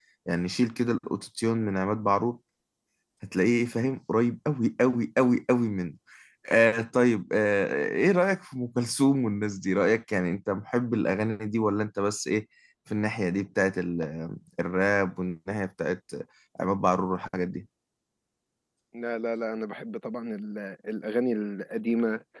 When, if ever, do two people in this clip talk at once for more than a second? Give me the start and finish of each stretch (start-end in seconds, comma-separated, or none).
none